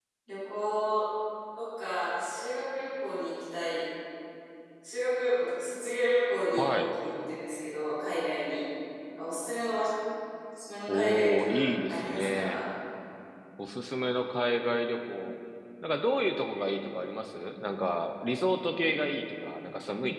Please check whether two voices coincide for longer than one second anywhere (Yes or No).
Yes